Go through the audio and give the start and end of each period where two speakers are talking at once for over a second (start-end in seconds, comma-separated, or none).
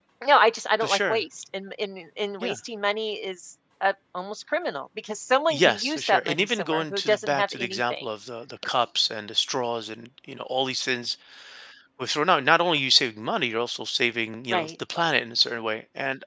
5.5-8.0